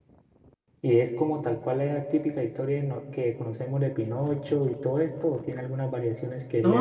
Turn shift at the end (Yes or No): Yes